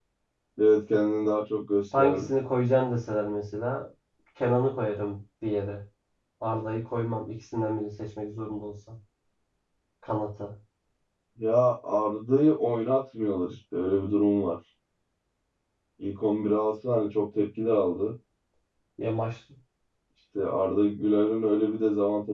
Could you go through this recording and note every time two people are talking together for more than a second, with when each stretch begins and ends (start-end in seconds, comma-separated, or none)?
none